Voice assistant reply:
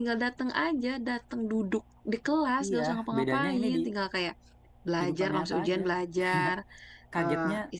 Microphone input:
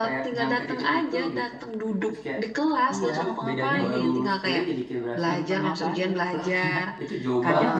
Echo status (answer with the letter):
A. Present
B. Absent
A